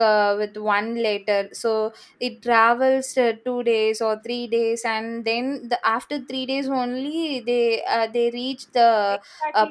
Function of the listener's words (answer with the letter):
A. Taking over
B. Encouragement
A